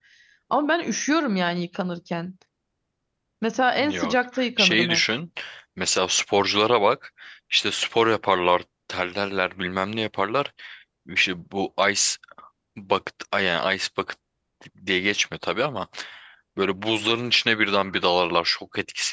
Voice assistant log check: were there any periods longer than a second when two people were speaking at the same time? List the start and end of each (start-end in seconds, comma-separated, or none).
3.8-5.0